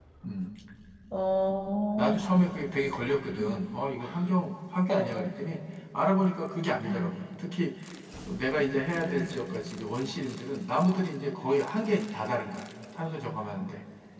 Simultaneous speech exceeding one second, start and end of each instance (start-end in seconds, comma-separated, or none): none